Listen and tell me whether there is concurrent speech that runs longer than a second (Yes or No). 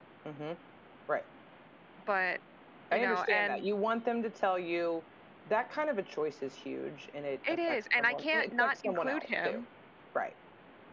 Yes